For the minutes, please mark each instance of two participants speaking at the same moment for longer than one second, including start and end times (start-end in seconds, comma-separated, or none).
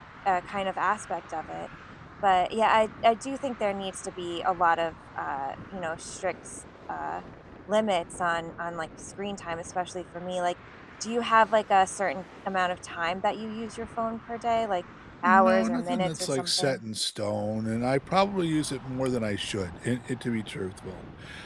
15.2-16.8